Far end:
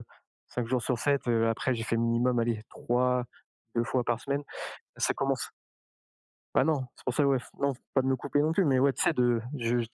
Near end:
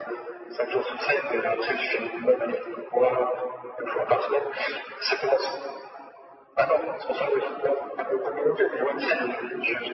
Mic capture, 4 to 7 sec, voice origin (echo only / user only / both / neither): echo only